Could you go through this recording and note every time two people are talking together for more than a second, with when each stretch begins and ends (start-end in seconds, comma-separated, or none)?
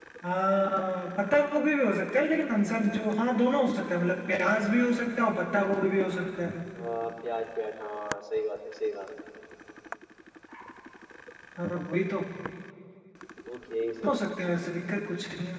none